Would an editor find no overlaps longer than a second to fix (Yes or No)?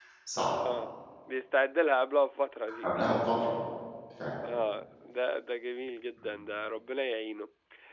Yes